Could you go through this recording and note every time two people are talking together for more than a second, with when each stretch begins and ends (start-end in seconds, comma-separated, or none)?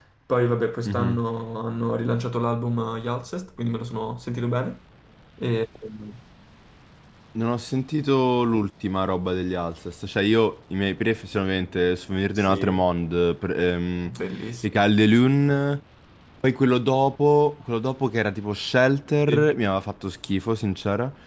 none